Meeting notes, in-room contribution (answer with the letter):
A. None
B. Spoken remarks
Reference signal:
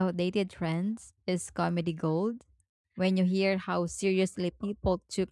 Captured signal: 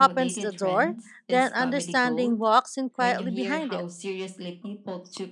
B